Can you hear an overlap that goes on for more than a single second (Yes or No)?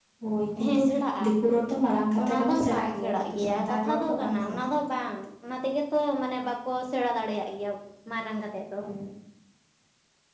Yes